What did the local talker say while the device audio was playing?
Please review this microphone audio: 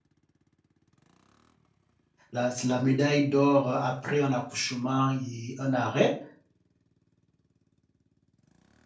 la, la médaille d'or après un accouchement et un arrêt

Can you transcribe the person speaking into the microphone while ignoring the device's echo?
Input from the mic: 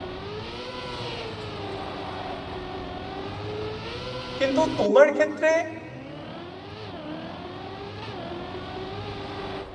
কিন্তু তোমার ক্ষেত্রে

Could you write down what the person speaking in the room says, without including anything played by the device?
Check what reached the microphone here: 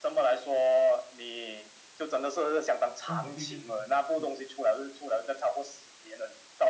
啊，对对对对对，

